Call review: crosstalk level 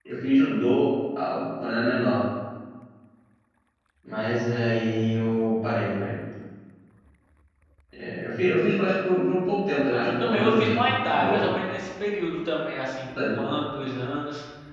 present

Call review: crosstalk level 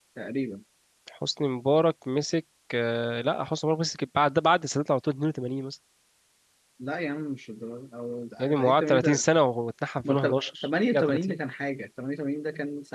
present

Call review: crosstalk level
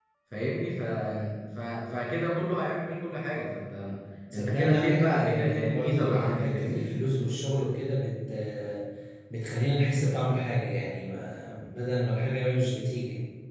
present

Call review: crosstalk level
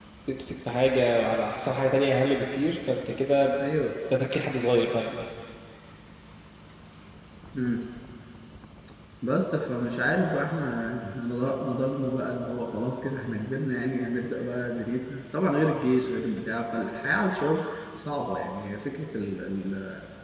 none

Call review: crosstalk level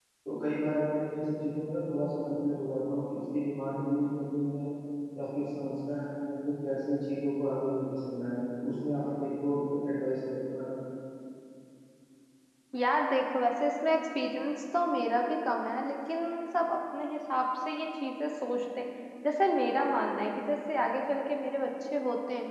none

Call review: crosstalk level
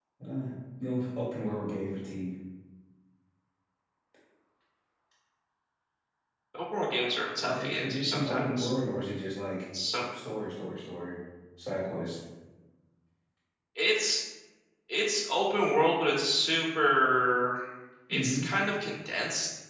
present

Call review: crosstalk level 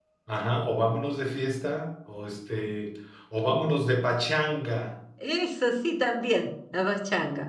none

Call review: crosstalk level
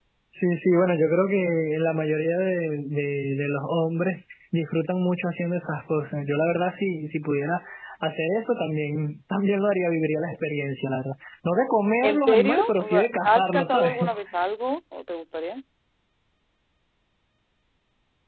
present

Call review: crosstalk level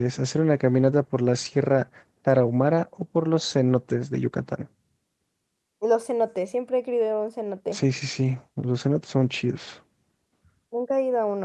none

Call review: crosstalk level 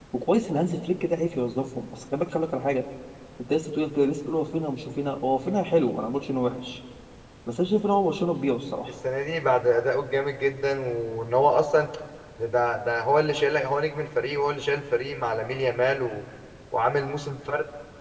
none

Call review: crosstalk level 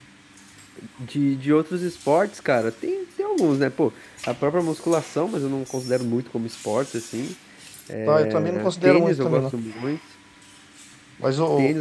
present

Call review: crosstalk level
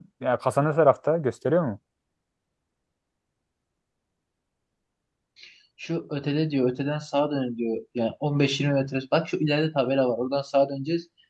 none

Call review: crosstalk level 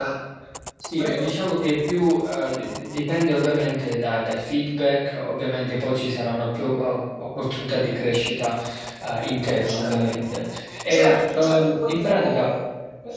present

